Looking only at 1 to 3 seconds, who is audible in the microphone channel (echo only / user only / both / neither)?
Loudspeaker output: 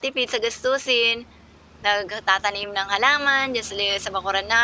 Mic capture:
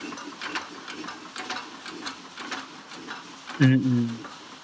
neither